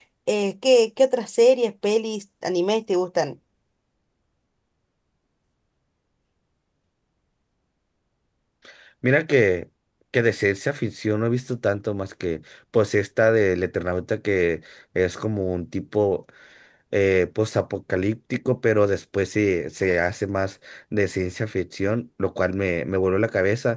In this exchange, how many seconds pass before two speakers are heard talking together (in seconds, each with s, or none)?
none